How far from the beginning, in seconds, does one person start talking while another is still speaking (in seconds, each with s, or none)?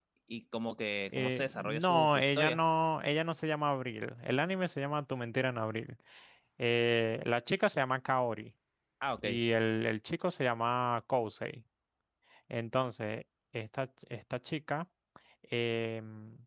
1.1 s